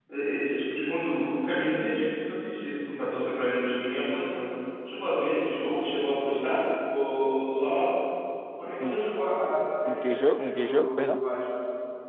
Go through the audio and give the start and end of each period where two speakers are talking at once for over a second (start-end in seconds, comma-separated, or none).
9.8-11.2